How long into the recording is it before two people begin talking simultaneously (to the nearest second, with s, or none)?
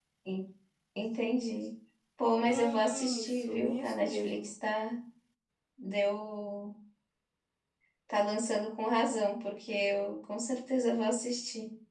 2 s